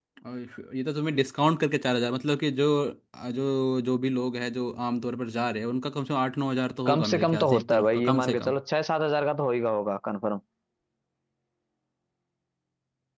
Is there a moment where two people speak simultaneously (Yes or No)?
Yes